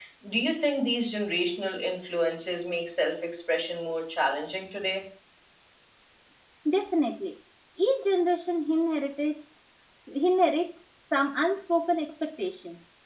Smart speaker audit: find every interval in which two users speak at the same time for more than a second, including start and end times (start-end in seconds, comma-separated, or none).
none